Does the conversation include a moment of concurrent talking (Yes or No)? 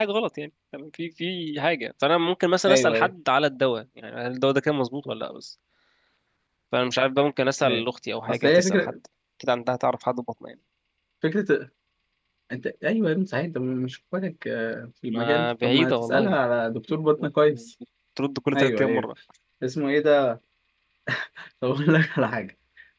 Yes